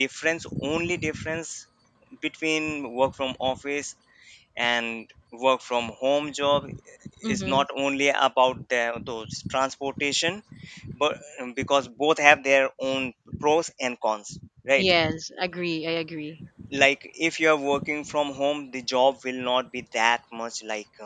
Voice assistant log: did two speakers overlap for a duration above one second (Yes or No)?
No